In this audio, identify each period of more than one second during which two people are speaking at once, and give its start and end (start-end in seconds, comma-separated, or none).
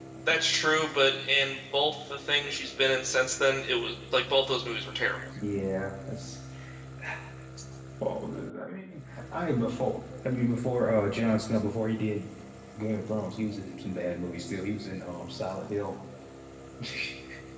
none